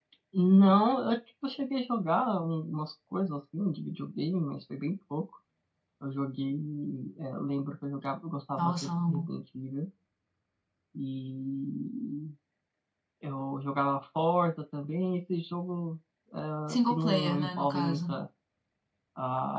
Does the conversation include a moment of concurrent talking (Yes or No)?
Yes